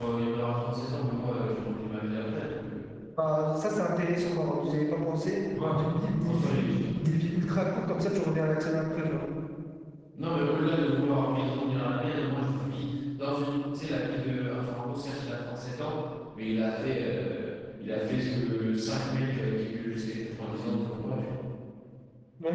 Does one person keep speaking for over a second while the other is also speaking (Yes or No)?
No